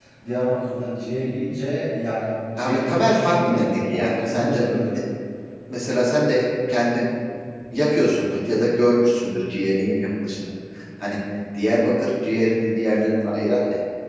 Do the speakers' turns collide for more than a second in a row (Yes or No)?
Yes